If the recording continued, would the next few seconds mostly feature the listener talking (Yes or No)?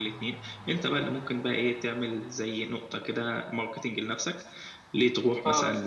No